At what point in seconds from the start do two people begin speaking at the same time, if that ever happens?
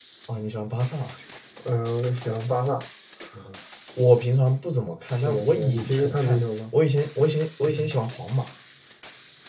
5.2 s

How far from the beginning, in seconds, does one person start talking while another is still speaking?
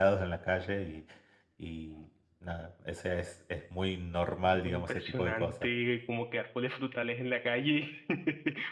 4.4 s

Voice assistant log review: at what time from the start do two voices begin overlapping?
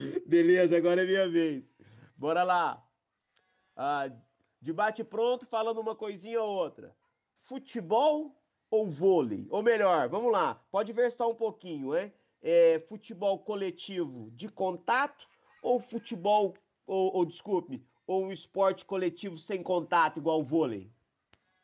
none

